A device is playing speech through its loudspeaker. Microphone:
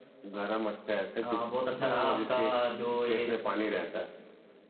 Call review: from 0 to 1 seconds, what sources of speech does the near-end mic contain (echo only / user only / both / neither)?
echo only